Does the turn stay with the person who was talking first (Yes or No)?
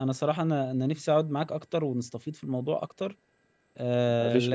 Yes